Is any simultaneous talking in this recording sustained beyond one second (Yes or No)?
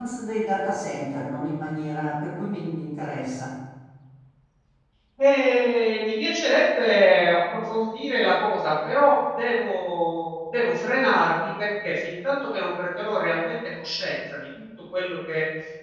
No